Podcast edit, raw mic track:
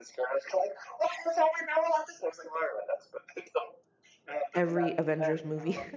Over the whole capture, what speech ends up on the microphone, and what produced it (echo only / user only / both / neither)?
both